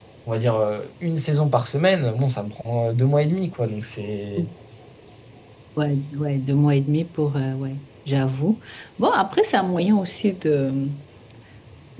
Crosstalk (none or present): none